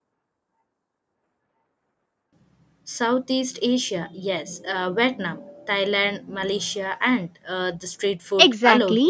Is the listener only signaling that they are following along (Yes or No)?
No